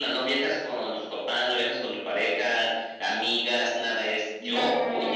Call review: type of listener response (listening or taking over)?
taking over